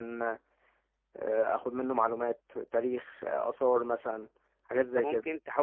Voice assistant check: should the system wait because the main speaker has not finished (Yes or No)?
No